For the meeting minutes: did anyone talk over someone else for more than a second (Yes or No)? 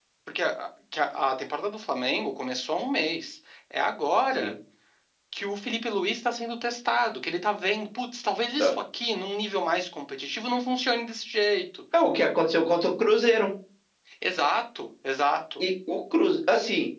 No